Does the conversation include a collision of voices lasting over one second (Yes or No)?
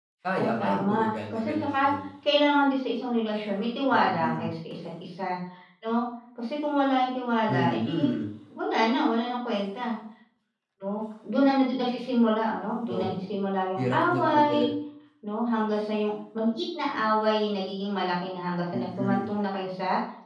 Yes